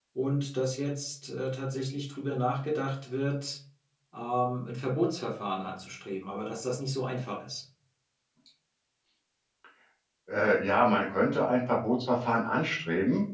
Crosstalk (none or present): none